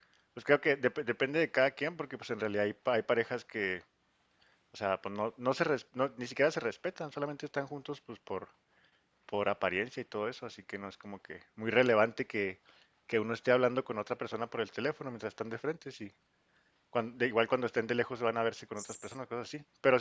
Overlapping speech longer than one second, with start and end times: none

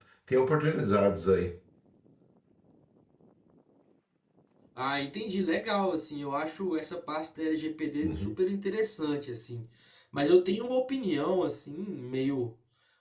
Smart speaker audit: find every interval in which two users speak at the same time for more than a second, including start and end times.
none

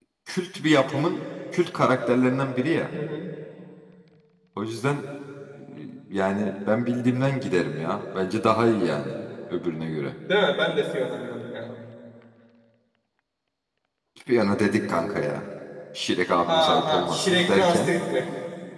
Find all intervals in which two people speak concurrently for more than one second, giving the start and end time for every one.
16.5-17.9

